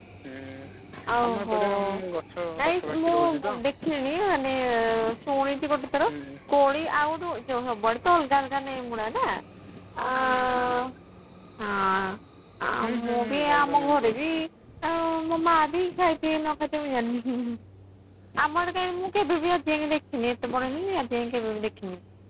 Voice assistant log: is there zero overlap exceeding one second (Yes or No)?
No